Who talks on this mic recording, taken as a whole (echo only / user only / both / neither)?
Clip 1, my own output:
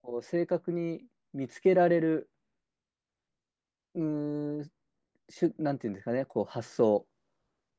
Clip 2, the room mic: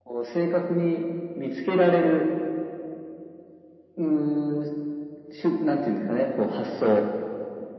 echo only